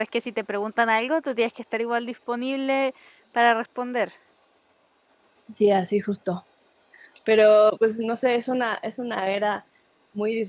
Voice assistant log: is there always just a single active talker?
Yes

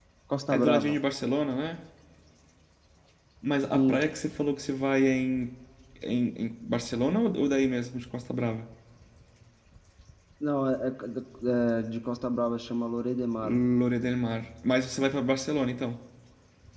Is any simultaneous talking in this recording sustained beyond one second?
No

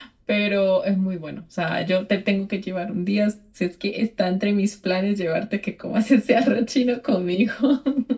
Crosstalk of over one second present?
No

